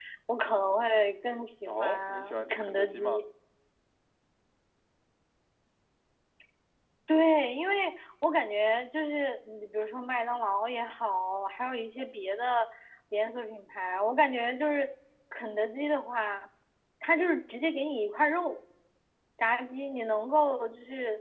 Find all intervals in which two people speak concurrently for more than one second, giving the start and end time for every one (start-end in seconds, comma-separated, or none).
1.6-3.2